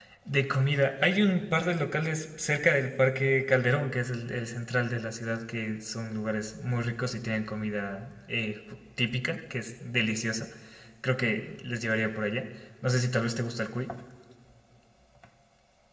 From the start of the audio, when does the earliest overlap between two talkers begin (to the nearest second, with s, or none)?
none